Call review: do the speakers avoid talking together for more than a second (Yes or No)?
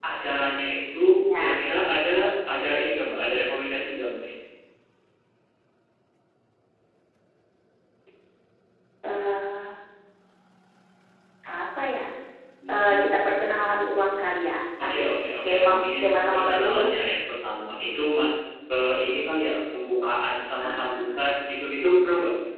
No